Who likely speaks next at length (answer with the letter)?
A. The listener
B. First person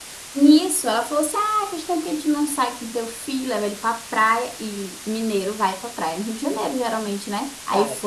B